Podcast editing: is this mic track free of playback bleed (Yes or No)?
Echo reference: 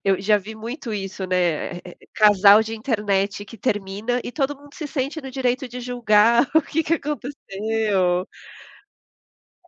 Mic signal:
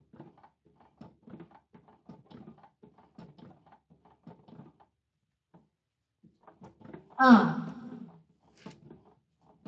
Yes